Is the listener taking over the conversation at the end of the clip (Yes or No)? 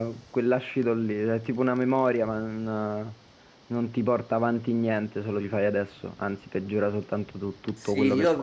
Yes